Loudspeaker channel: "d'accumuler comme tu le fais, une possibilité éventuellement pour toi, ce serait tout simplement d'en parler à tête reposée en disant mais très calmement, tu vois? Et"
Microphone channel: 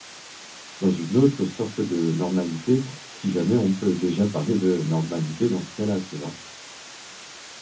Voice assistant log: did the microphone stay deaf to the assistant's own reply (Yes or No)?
Yes